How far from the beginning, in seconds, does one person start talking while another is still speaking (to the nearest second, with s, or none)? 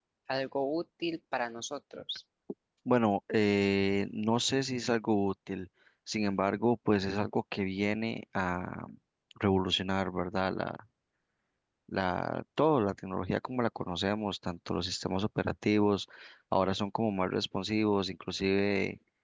none